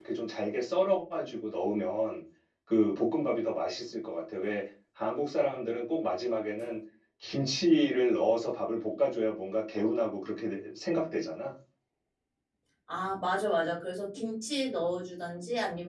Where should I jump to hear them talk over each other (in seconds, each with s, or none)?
none